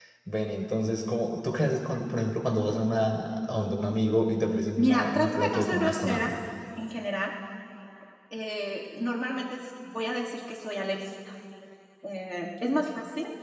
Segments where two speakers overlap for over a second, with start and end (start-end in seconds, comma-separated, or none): 4.8-6.3